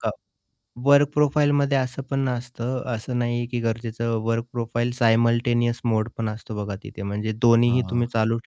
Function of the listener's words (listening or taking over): listening